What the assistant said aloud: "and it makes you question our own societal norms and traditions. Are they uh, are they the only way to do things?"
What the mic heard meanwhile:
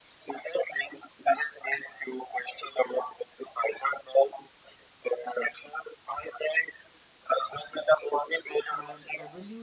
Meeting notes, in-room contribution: present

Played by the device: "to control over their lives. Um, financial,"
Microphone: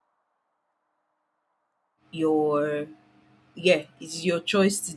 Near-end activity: present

